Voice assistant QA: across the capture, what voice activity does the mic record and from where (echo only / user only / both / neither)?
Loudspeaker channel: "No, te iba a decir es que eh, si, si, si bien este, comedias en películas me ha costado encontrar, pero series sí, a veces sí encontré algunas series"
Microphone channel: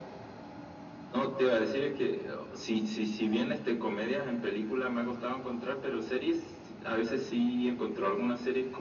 echo only